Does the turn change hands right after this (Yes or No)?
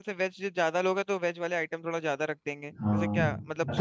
Yes